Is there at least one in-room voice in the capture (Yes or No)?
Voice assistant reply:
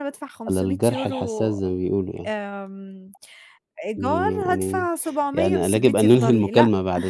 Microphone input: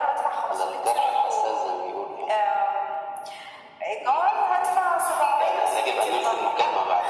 No